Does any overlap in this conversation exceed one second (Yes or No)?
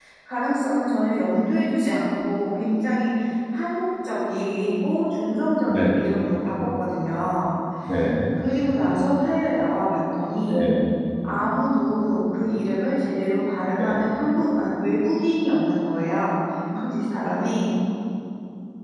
No